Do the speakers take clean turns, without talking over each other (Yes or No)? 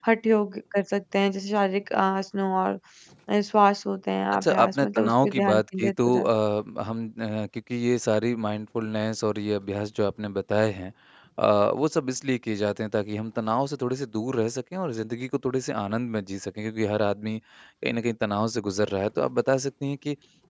No